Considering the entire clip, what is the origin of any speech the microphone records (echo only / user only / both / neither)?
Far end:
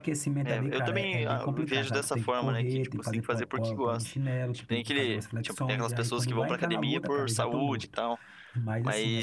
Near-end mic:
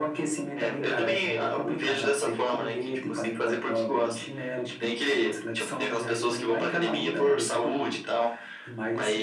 echo only